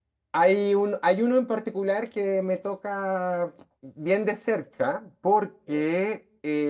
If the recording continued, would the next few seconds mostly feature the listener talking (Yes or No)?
No